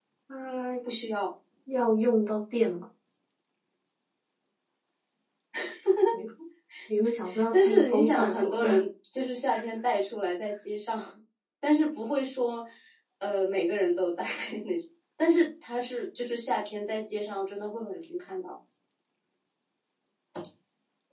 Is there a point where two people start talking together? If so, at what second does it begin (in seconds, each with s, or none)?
7.5 s